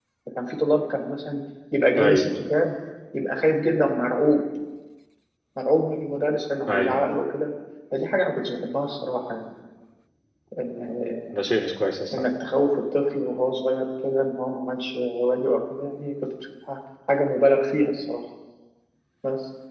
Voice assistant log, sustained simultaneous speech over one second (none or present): none